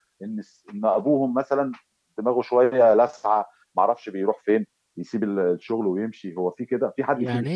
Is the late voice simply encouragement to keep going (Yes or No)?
No